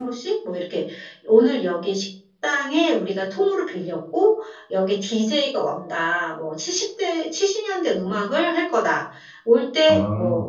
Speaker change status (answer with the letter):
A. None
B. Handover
A